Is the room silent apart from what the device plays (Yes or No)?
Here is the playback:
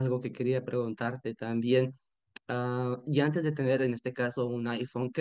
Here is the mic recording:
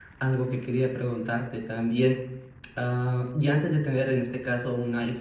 Yes